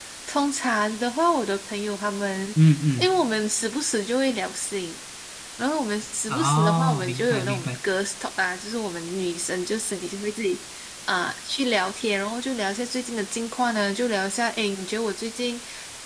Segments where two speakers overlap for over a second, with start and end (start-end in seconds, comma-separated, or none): 6.3-7.8